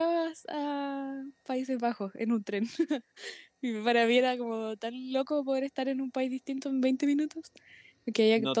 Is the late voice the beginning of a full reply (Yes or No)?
Yes